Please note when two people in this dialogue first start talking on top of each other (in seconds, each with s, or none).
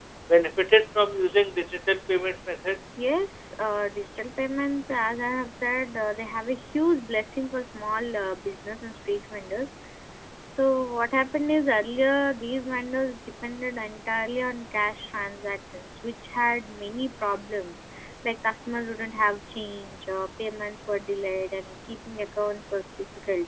none